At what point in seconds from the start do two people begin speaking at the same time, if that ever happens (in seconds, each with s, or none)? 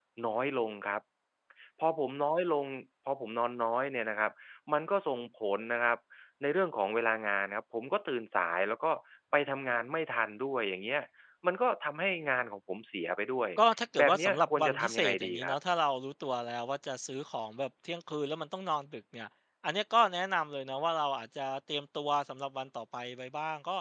14.0 s